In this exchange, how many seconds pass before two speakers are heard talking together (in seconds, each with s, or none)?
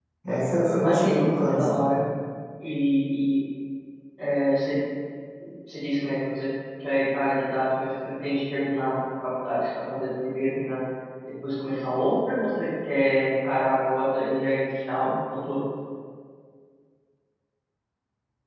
0.6 s